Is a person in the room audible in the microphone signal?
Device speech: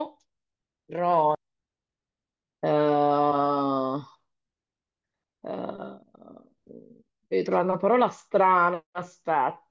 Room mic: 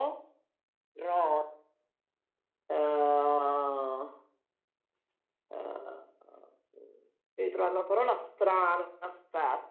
No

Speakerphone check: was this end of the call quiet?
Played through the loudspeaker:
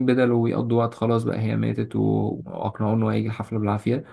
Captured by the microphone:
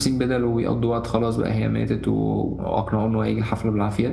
Yes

